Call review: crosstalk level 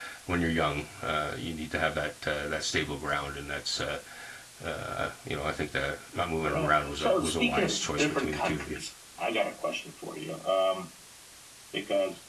present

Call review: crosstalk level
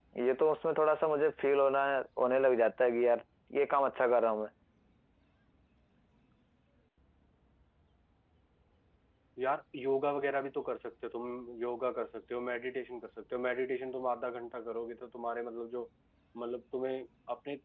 none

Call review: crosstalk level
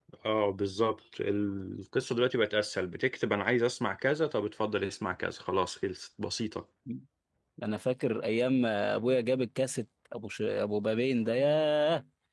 none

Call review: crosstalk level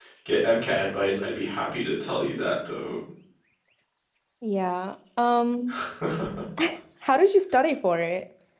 none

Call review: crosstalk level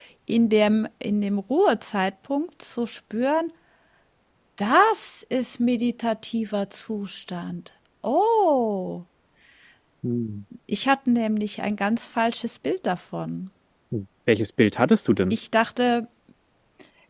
none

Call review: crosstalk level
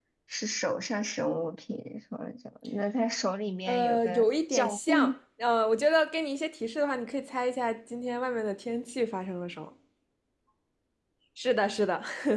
present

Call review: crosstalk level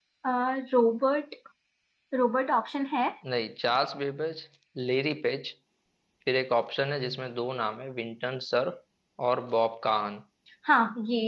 none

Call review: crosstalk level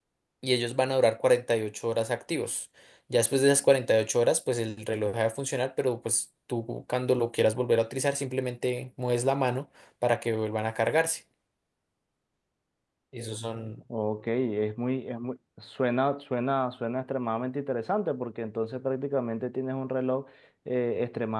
none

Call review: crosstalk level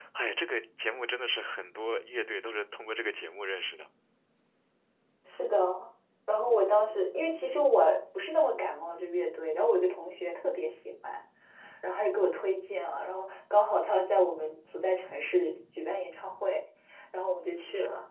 none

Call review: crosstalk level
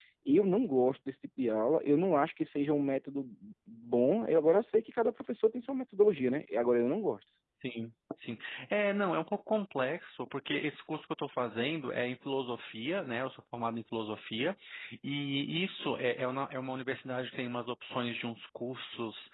none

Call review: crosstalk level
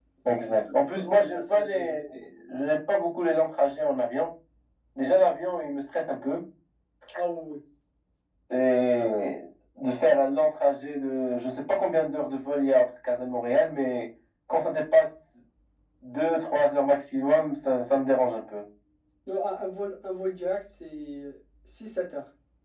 present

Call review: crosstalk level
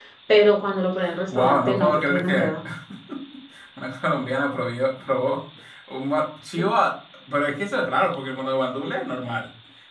present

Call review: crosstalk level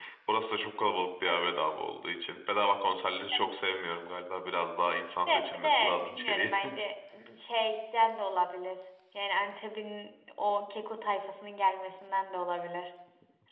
present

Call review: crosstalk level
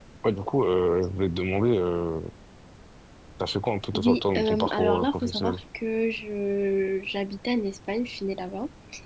present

